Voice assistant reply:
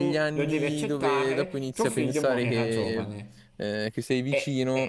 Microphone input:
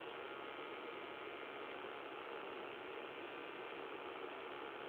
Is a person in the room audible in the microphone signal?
No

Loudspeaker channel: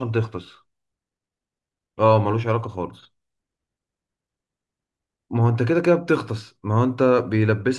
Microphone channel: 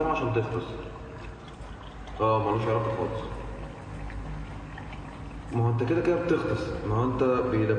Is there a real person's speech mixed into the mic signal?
No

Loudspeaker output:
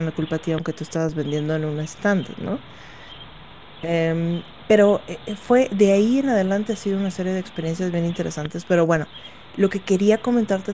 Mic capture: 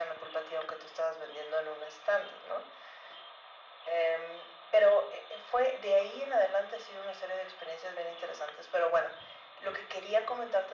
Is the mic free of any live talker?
Yes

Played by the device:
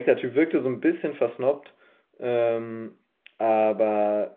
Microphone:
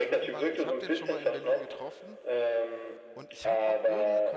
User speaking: Yes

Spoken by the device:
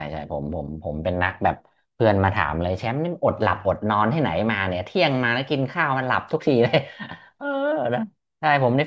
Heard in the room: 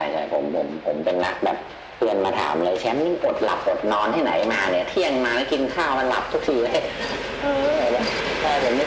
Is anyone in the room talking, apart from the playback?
No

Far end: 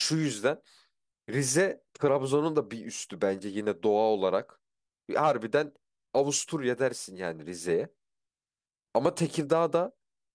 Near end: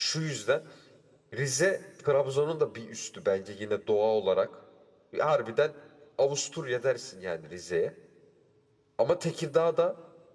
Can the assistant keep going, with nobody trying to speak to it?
Yes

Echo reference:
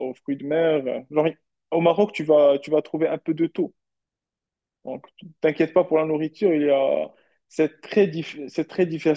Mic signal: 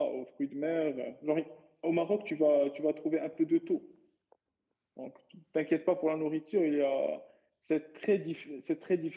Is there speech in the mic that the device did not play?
No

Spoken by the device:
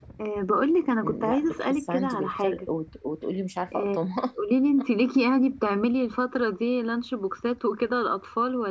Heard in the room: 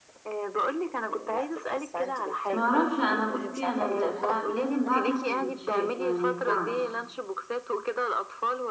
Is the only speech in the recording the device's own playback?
No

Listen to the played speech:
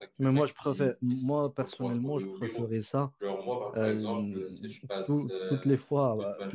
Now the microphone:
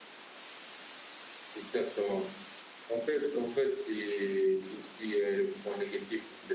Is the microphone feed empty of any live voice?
No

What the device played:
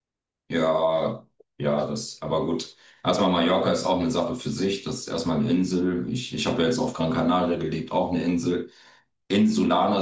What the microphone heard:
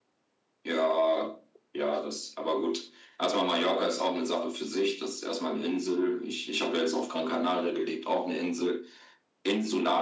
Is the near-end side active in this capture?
No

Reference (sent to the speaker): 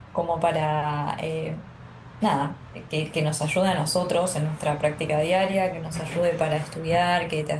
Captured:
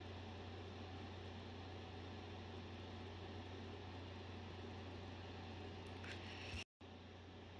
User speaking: No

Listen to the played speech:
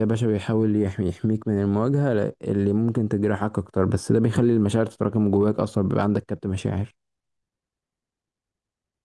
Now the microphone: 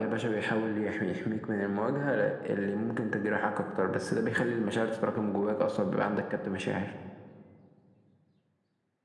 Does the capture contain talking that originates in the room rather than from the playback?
No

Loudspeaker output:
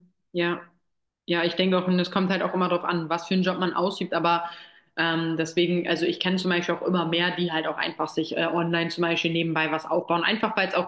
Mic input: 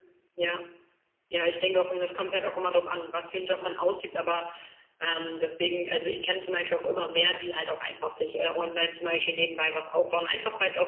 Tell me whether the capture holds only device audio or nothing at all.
Yes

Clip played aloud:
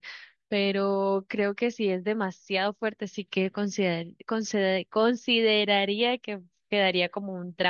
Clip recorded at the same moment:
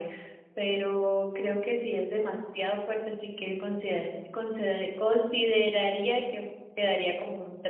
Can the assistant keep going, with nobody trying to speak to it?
Yes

